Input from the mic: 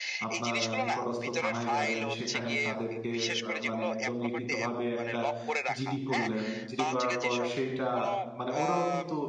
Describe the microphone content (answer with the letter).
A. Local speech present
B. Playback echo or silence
A